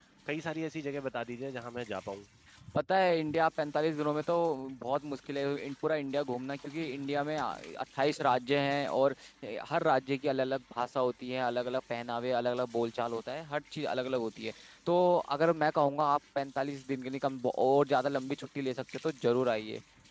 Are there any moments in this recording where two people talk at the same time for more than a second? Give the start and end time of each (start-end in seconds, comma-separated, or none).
none